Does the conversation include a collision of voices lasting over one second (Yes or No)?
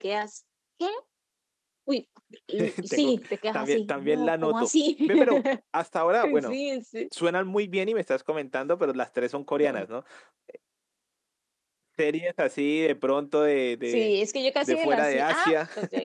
Yes